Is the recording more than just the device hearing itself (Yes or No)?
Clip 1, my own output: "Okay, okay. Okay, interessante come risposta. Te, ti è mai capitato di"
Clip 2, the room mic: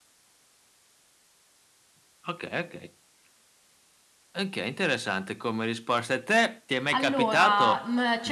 Yes